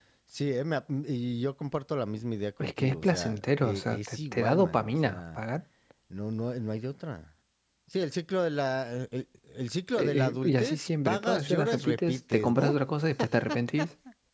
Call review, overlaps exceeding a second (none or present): present